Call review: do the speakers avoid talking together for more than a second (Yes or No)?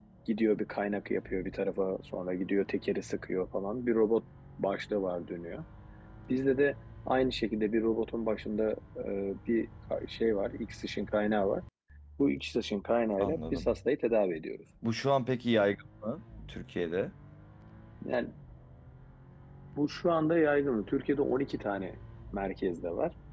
Yes